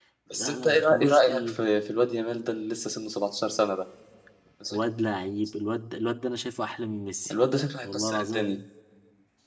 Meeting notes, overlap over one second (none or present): present